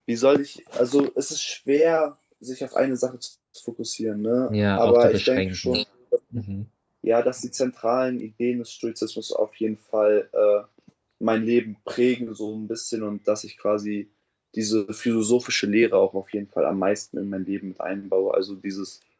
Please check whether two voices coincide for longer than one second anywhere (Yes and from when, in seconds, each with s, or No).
Yes, from 4.5 s